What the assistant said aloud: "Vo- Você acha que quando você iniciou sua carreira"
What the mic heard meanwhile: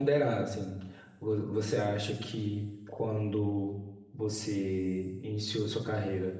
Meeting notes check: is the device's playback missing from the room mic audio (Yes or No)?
No